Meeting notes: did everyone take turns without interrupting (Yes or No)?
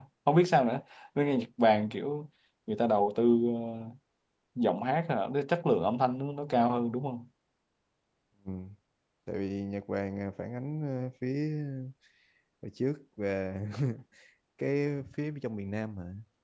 Yes